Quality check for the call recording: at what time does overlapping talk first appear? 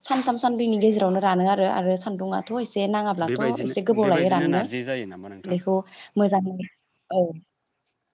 3.2 s

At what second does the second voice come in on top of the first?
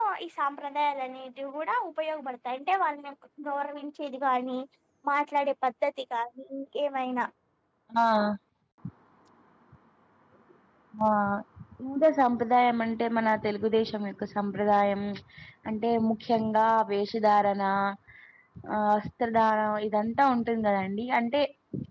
none

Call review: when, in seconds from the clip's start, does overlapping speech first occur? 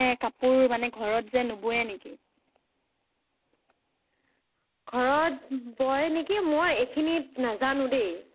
none

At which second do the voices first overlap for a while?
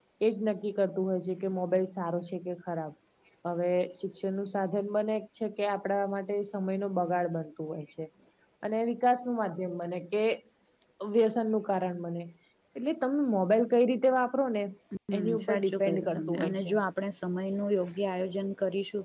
15.2 s

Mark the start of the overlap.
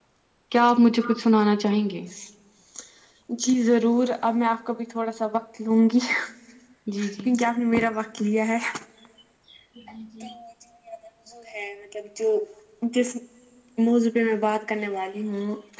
none

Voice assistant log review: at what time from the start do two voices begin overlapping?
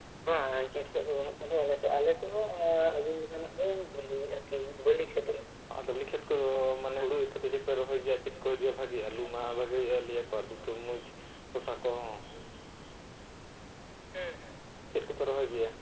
none

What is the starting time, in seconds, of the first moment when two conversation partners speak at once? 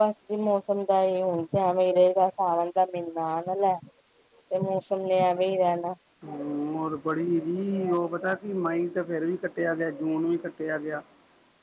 none

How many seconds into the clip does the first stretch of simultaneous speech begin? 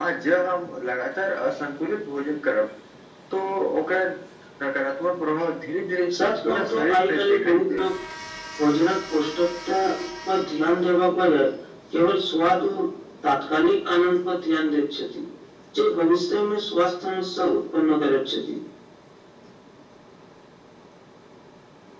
6.5 s

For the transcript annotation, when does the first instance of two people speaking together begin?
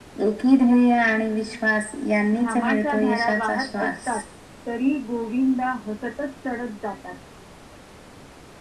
2.3 s

